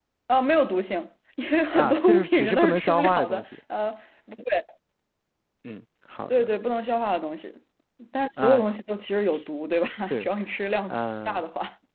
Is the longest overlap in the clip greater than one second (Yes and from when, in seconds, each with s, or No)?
Yes, from 1.7 s